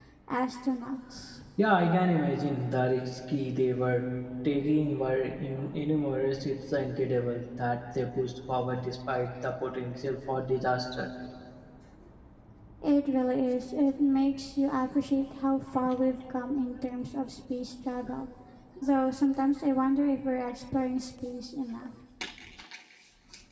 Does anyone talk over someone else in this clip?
No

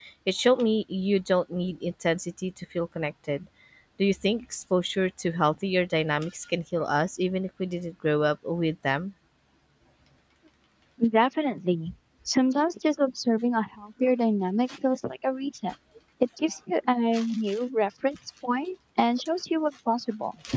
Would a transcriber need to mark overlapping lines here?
No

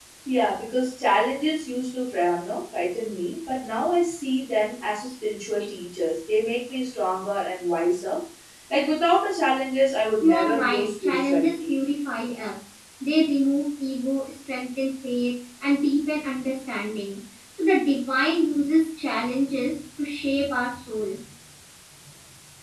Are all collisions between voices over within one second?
No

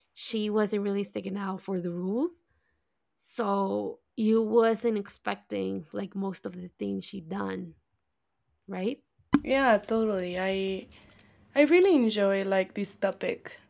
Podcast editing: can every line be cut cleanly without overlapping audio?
Yes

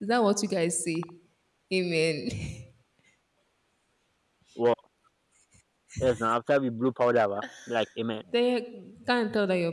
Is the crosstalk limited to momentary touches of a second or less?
Yes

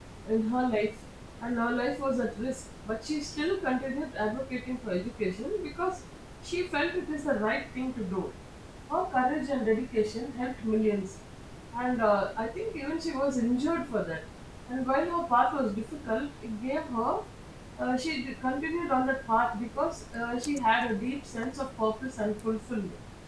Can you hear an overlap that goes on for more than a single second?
No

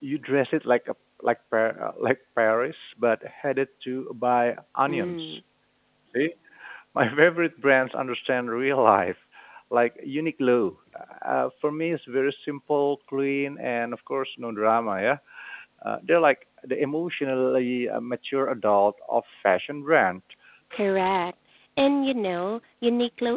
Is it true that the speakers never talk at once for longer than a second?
Yes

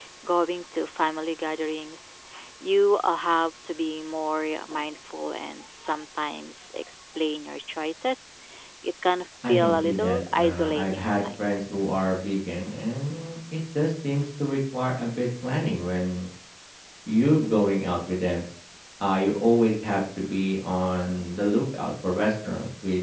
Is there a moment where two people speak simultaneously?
Yes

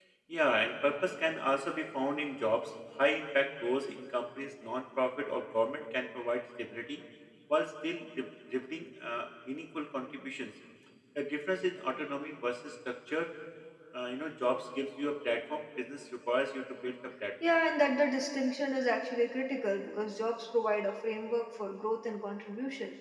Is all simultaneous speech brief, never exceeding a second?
Yes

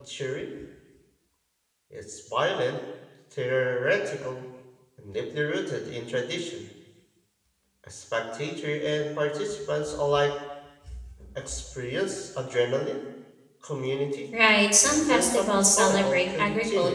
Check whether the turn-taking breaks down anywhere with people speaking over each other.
Yes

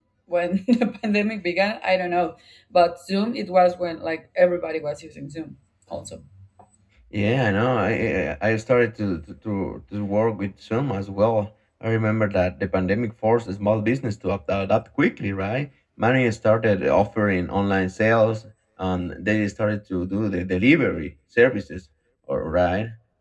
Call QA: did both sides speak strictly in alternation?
Yes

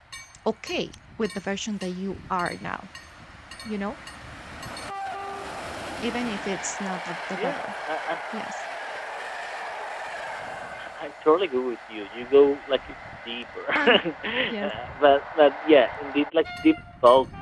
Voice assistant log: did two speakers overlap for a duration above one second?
No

